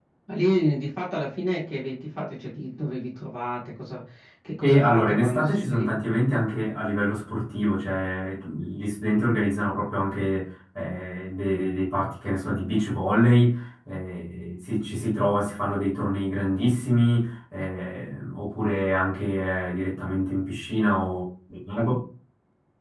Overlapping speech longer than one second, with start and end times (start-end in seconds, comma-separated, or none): 4.6-6.0